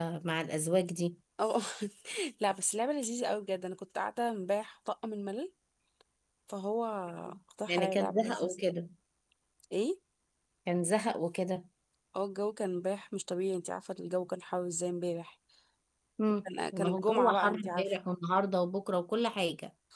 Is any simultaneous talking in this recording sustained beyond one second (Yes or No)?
Yes